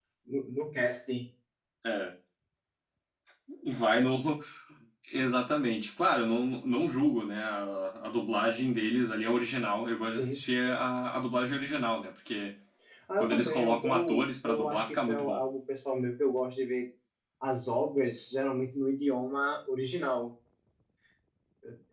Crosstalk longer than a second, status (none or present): present